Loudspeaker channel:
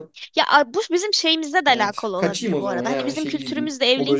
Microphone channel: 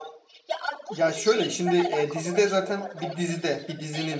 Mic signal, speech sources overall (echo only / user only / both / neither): both